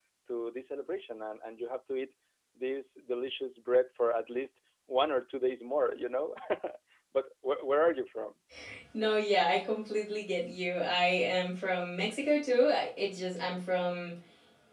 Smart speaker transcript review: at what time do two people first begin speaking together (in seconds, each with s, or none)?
none